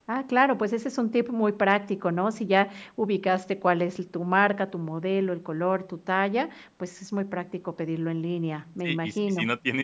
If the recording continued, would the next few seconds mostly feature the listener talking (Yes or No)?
Yes